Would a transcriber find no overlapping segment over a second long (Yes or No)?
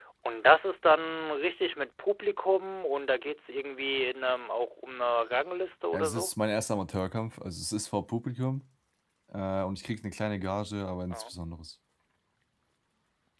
Yes